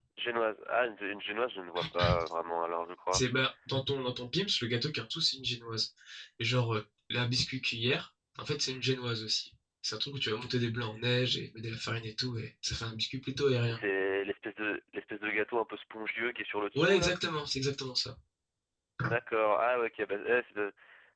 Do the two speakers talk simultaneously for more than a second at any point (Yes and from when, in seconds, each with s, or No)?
No